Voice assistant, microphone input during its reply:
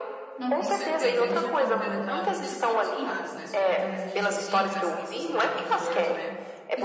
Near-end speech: present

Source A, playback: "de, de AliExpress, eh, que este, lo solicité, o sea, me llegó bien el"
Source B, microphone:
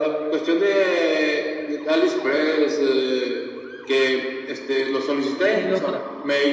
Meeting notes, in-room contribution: present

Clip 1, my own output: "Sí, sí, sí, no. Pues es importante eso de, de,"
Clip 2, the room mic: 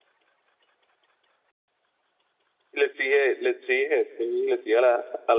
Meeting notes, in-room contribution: present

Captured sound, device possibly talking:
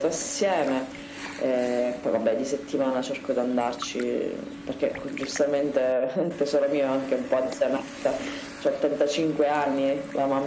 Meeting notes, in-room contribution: none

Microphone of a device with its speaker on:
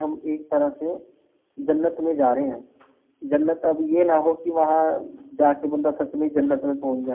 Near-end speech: none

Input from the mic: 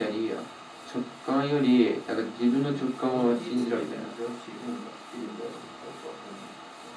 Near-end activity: present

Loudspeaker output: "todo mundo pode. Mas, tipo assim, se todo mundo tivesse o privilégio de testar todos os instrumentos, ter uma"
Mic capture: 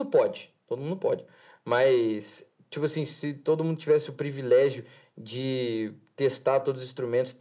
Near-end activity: none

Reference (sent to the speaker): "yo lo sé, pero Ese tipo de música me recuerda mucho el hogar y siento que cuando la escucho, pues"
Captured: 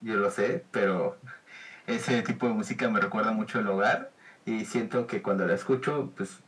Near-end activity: none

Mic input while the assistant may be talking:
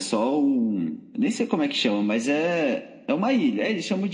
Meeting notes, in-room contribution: none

